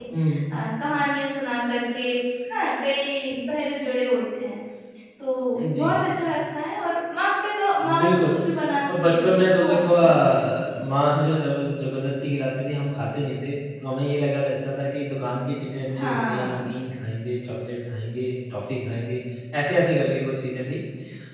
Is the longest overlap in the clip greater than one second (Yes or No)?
Yes